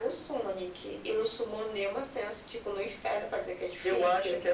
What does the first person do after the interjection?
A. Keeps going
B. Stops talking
B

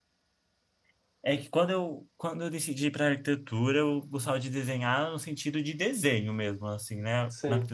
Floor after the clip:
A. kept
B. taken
A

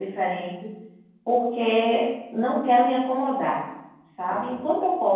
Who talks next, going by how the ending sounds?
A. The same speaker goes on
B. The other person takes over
A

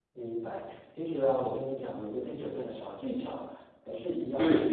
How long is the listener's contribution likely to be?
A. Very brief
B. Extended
A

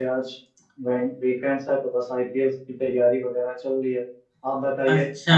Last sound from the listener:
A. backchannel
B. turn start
B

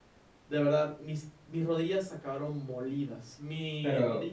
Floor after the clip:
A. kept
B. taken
A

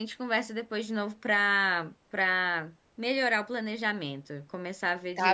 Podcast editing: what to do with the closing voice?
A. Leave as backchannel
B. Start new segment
B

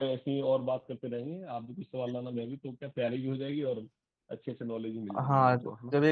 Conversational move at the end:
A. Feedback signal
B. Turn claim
B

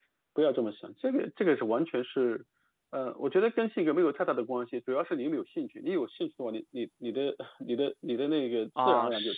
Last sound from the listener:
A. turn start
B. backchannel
A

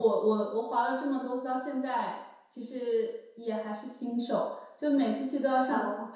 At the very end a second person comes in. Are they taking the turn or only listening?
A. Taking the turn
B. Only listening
B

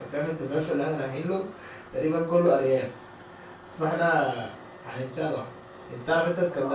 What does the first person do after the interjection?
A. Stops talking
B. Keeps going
B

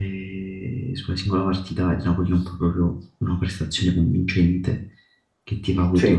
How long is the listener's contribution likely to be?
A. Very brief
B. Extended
A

